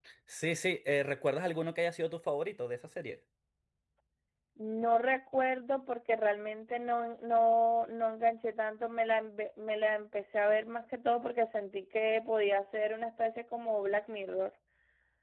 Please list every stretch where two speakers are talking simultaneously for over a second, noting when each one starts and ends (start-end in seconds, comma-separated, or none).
none